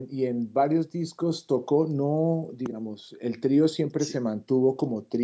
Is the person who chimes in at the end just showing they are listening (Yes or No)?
Yes